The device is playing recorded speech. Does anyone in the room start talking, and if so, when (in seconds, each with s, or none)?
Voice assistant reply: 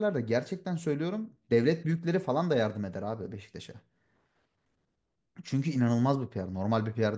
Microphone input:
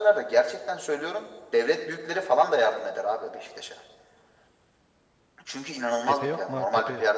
6.0 s